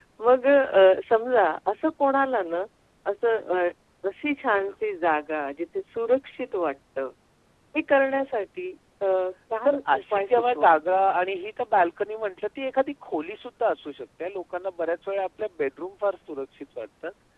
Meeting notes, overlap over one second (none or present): present